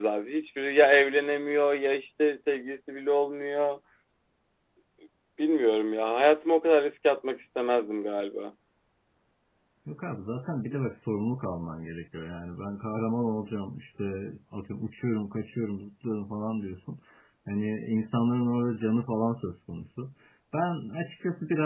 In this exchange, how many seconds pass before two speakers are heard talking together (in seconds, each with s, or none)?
none